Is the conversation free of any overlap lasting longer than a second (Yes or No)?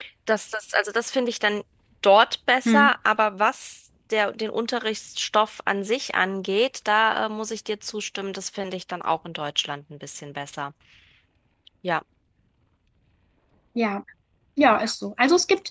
Yes